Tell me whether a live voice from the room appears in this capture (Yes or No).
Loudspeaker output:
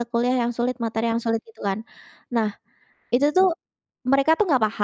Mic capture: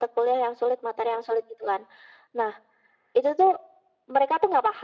No